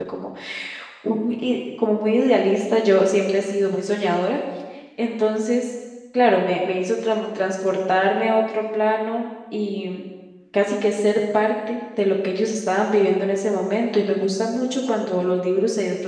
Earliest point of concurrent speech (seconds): none

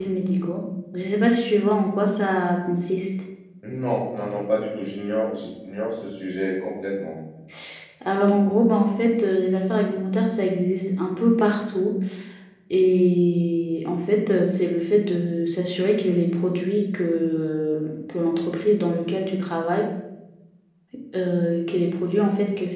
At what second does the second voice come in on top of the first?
none

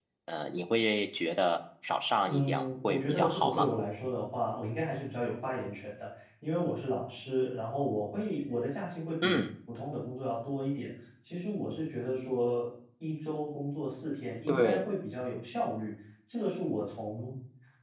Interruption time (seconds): 2.3 s

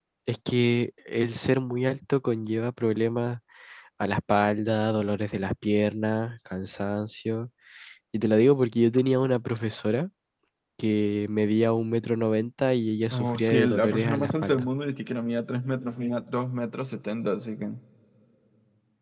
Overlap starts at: 13.1 s

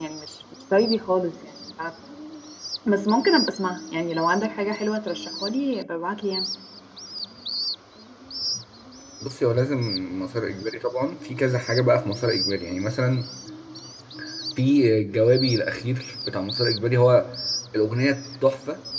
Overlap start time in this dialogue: none

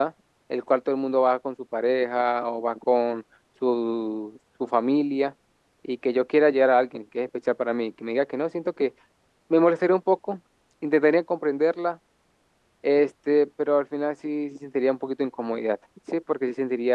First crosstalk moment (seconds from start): none

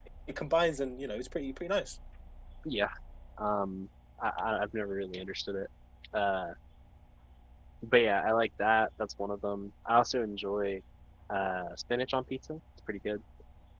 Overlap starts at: none

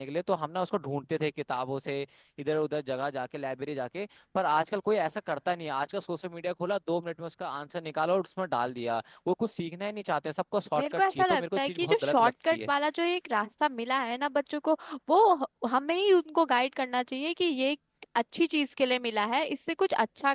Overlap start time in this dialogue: 10.8 s

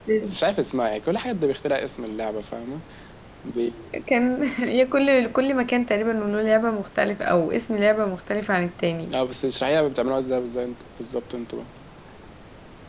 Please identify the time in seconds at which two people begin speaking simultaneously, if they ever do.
none

